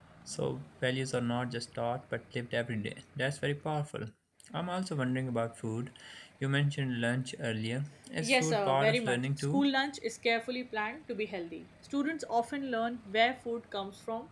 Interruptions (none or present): present